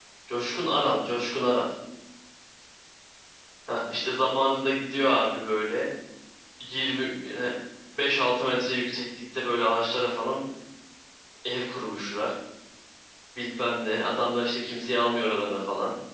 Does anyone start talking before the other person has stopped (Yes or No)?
No